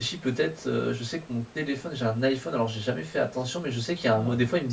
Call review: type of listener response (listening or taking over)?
listening